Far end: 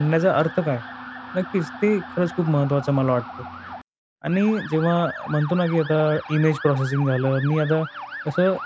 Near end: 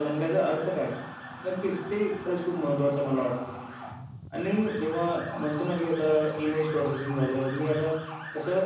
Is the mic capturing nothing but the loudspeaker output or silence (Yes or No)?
Yes